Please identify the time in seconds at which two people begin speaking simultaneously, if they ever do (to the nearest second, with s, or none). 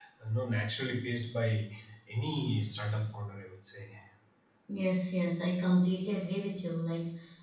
none